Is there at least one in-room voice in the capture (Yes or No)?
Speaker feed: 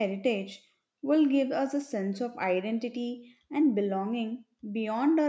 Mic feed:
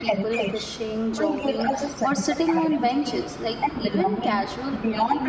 Yes